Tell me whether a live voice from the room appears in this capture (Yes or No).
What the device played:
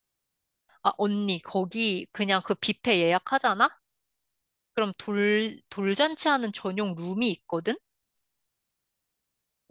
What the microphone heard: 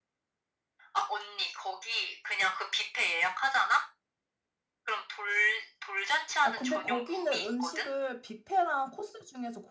Yes